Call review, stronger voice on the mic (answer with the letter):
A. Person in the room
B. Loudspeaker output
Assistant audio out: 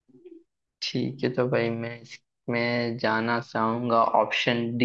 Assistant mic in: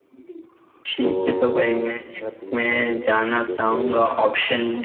B